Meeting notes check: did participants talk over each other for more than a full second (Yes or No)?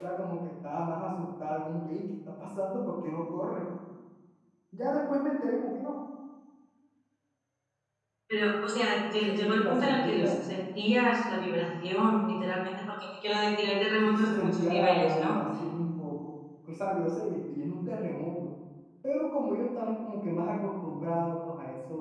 Yes